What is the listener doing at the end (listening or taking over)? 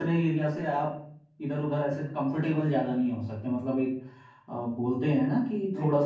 taking over